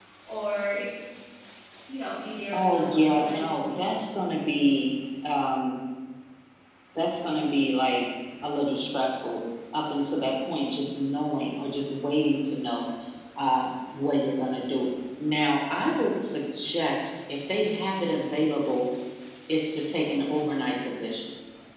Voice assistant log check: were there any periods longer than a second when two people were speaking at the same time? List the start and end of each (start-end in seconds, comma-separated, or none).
2.5-4.0